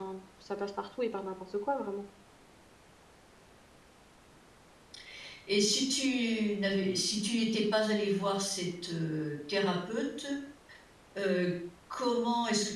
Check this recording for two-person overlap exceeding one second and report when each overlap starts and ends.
none

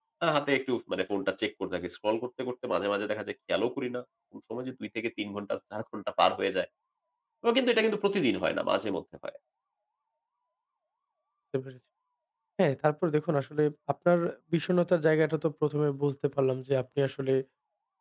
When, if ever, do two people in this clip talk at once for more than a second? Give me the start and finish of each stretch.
none

